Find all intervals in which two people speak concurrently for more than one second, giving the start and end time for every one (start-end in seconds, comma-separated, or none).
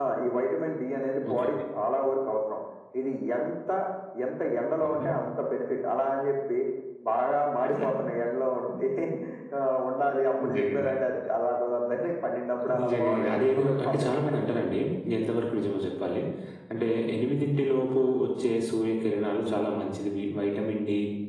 12.8-14.2